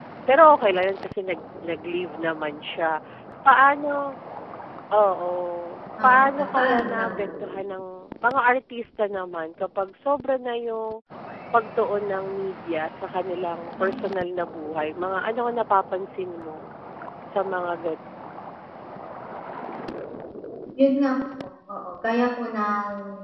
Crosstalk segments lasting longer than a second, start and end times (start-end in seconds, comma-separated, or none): 6.0-7.3